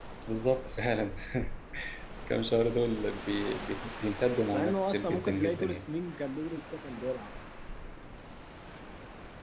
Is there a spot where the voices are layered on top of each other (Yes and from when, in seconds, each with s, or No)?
Yes, from 4.5 s